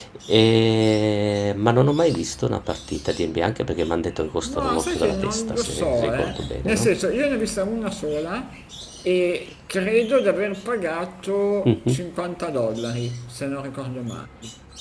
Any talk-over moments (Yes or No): Yes